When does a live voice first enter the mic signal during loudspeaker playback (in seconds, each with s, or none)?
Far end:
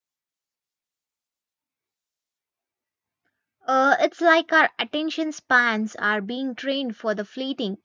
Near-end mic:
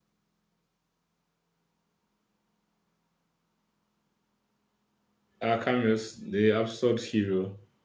5.4 s